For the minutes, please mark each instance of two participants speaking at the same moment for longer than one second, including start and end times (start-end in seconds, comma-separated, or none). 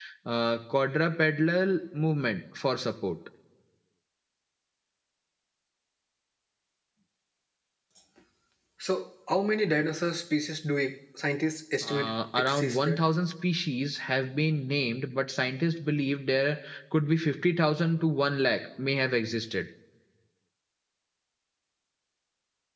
11.8-13.0